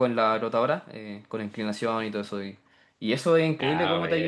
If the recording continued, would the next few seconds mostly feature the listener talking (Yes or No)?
No